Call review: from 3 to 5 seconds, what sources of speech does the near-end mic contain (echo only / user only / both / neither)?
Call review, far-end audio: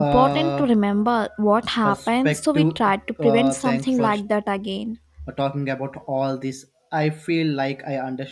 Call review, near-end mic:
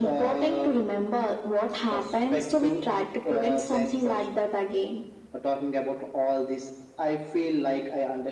echo only